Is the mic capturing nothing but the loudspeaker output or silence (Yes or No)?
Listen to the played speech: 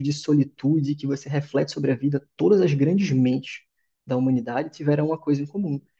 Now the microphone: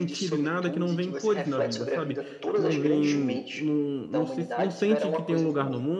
No